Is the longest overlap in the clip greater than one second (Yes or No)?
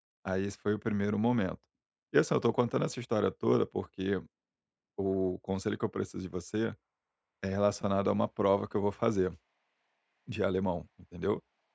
No